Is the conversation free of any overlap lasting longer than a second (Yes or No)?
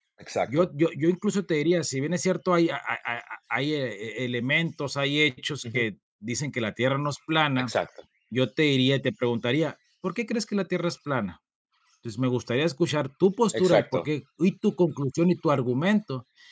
Yes